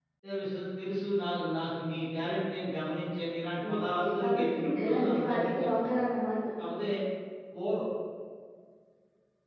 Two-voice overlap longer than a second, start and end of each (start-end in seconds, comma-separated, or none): 3.6-5.7